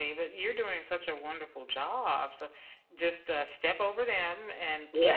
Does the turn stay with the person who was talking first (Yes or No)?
Yes